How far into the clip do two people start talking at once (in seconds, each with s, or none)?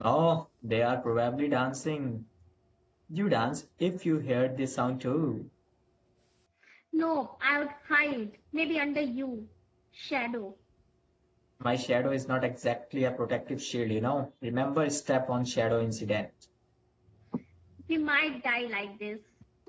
none